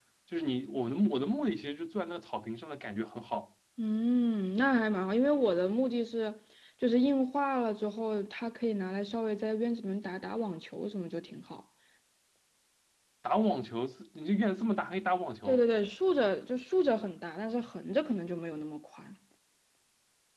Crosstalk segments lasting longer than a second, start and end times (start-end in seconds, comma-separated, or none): none